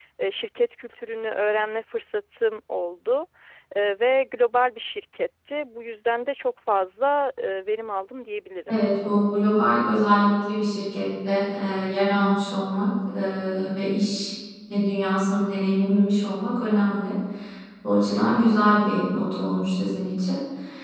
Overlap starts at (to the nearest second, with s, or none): none